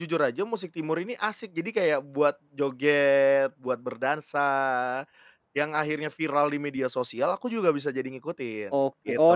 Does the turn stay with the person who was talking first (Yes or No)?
No